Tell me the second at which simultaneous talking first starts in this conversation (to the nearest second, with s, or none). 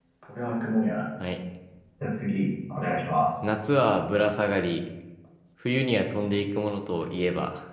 none